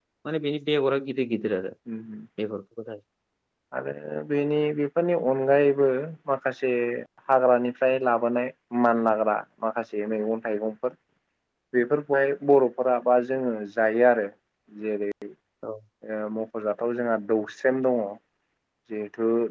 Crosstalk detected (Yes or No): No